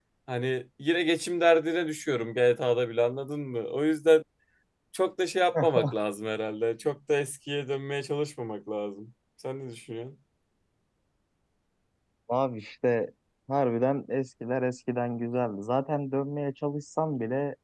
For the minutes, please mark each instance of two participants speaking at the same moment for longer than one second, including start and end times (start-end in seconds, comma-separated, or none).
none